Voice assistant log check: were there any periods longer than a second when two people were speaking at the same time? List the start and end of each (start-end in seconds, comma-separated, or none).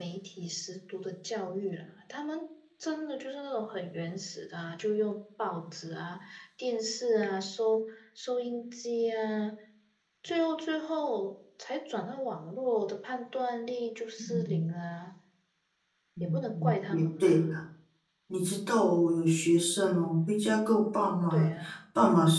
16.2-17.4